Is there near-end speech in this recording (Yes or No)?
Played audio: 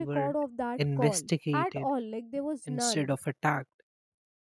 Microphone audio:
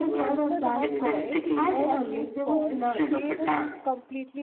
Yes